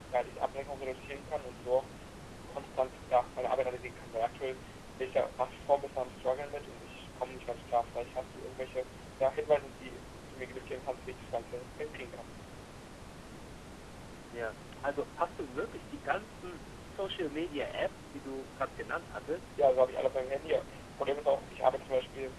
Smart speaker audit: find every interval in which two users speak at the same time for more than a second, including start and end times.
none

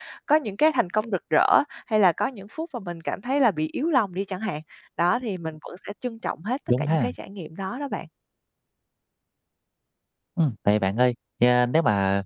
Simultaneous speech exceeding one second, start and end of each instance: none

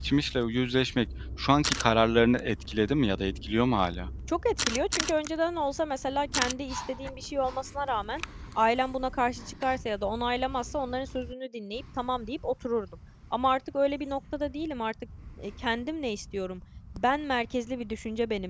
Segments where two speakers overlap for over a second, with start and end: none

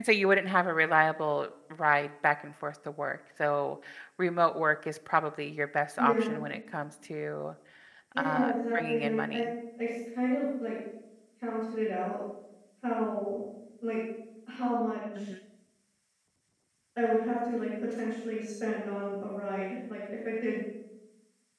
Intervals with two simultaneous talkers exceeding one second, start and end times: 8.2-9.4

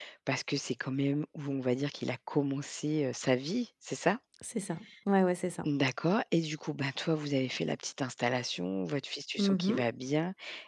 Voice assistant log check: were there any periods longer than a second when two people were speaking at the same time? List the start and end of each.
none

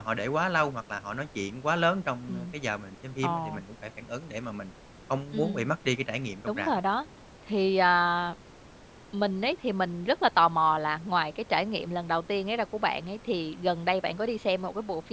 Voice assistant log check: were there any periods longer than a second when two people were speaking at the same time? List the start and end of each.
none

